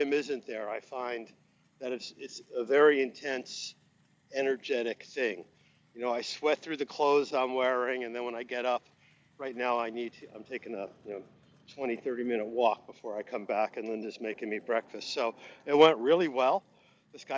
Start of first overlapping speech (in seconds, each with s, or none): none